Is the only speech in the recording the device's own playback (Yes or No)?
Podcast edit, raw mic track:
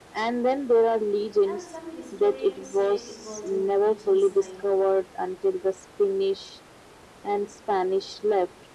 No